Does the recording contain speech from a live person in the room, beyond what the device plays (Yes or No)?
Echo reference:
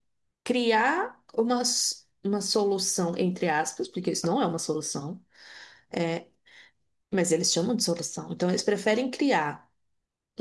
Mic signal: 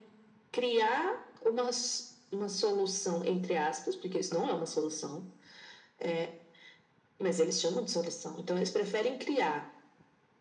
No